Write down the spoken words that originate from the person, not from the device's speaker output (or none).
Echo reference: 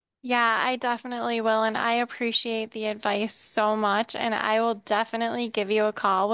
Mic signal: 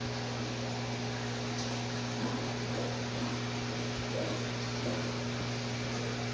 none